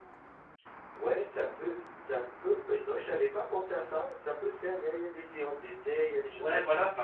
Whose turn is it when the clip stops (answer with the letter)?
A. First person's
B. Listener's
B